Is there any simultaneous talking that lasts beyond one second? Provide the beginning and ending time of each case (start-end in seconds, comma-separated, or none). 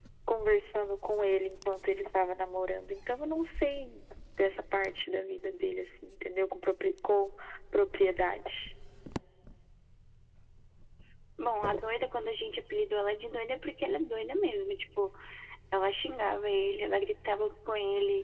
none